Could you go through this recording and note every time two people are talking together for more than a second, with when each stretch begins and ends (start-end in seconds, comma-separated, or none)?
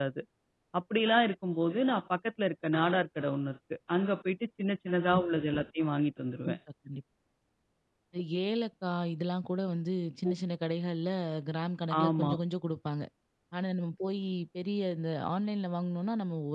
none